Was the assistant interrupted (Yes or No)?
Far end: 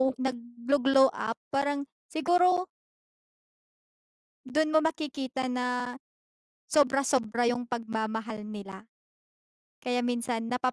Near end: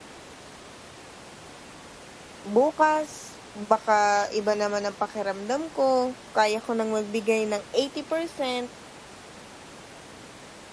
Yes